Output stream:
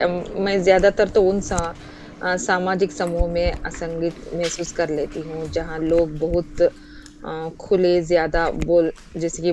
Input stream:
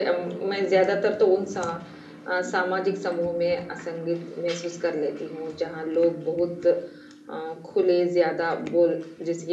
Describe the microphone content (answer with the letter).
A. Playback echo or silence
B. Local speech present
A